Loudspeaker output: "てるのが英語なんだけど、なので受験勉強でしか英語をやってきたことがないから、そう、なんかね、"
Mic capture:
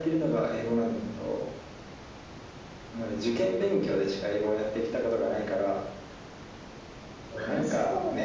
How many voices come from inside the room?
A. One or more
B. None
A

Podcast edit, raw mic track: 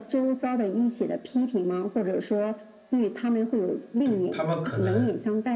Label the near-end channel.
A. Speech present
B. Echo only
A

